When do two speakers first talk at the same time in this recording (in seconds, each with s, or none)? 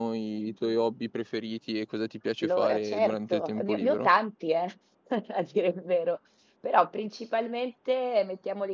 2.4 s